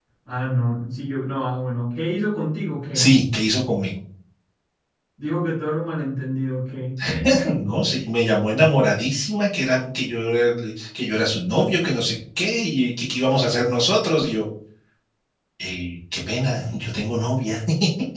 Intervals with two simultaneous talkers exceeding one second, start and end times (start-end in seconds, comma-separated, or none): none